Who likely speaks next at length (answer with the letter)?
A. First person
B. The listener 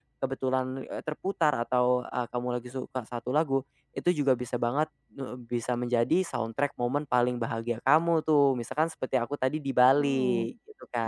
B